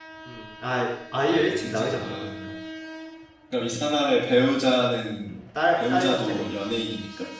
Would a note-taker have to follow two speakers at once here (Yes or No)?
Yes